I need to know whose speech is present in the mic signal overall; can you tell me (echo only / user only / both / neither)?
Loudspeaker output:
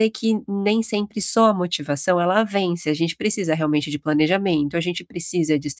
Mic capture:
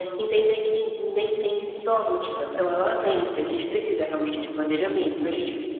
echo only